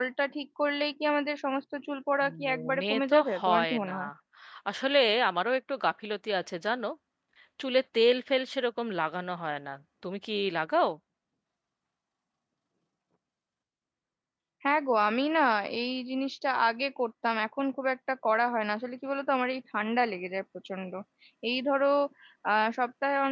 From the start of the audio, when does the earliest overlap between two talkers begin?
2.2 s

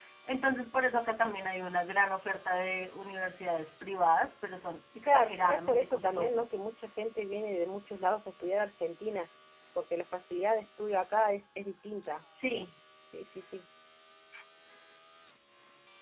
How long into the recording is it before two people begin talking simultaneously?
5.0 s

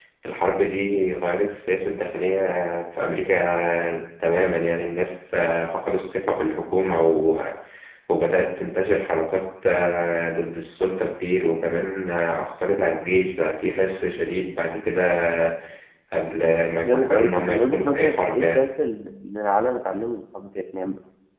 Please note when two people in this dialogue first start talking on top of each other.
16.8 s

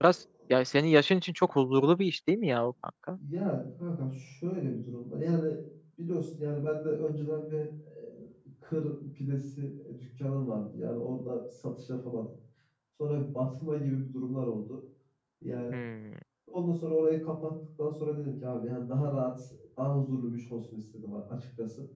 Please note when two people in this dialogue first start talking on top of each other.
none

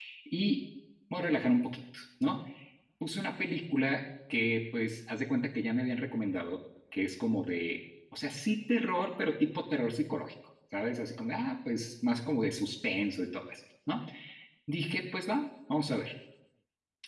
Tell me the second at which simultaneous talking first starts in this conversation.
none

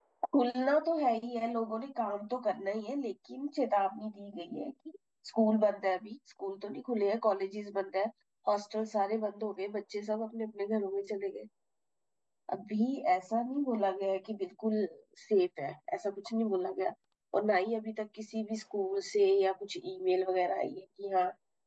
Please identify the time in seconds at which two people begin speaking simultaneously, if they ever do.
none

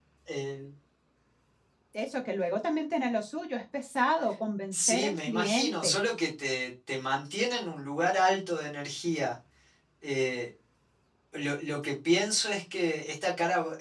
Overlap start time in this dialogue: 4.7 s

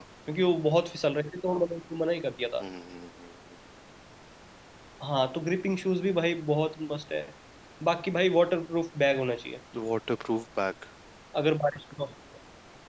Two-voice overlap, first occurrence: none

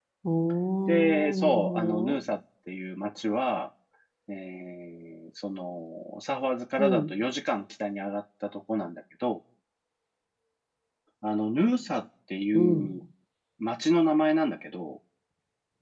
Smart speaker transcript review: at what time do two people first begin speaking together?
0.9 s

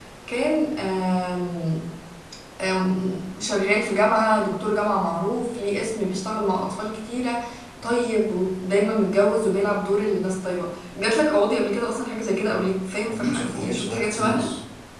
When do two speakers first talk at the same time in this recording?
13.1 s

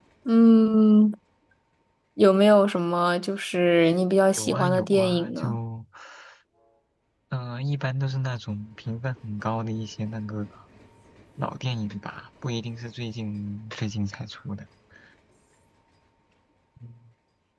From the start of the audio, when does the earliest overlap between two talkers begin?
4.4 s

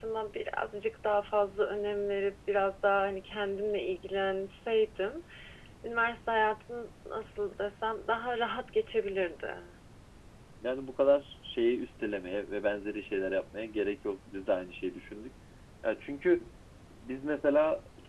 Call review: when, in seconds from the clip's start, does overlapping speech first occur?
none

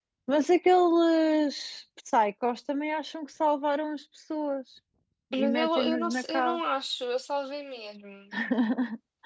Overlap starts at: 5.3 s

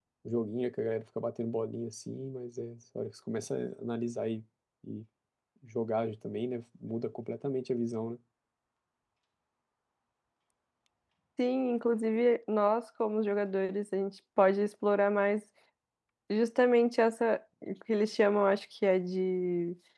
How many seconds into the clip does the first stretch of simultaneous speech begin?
none

